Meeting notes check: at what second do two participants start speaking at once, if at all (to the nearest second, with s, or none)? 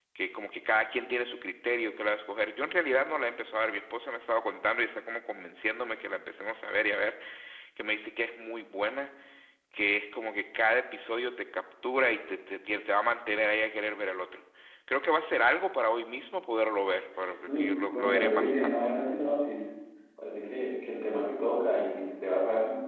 18 s